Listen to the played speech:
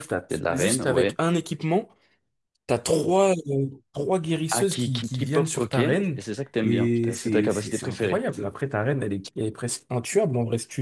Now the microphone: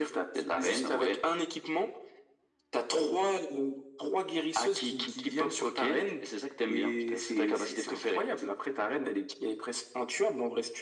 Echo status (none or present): present